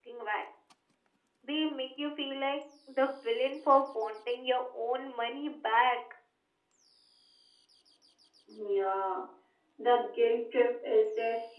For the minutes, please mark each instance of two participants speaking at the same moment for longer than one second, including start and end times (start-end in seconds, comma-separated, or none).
none